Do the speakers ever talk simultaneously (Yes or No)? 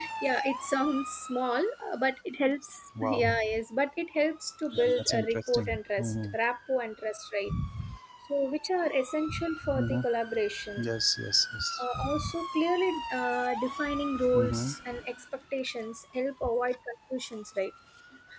Yes